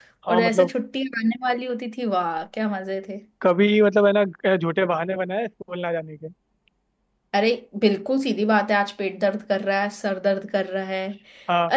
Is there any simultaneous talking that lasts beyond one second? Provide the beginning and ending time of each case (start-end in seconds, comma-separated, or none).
none